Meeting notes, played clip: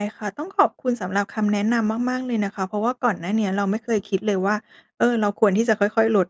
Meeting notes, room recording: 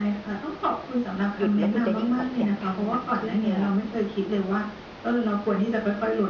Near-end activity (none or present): present